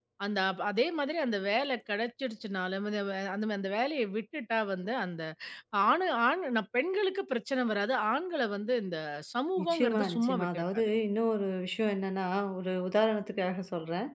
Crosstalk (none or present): present